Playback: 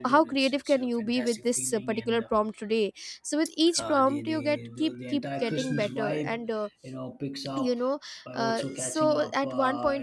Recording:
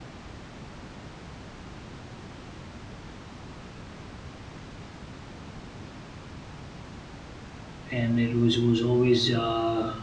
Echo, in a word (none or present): none